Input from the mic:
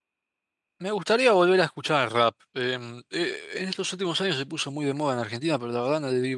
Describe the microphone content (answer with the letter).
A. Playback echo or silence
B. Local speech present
B